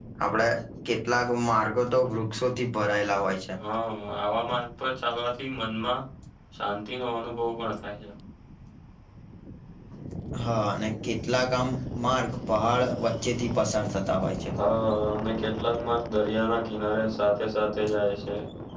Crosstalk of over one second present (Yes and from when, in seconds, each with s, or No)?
No